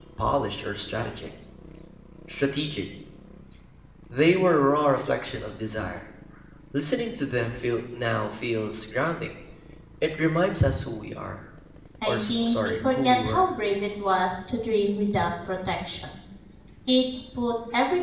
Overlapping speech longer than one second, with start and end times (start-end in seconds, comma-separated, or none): 12.1-13.4